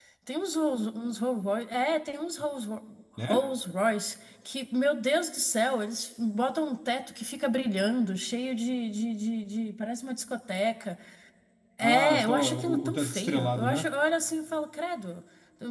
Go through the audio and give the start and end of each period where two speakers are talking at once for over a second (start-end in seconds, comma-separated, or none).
11.8-13.9